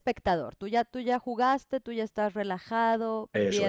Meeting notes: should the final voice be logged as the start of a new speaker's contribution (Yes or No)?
No